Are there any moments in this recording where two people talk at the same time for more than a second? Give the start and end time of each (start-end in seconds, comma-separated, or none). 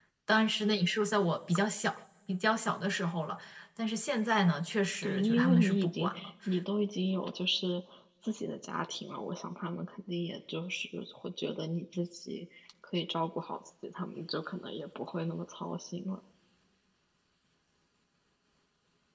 5.0-6.3